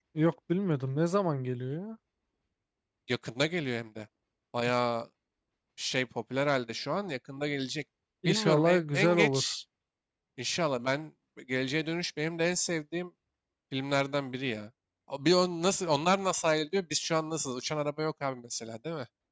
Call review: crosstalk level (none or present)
present